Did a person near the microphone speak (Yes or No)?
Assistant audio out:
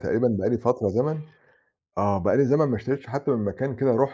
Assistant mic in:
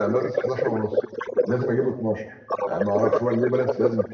Yes